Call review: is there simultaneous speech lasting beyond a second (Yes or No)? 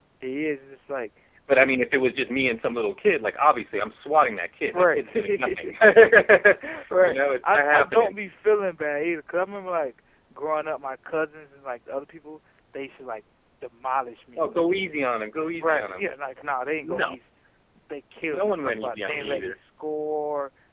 Yes